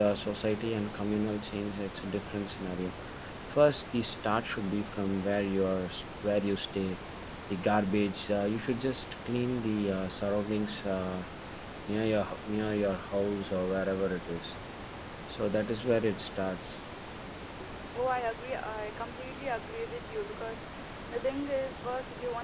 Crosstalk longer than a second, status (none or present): none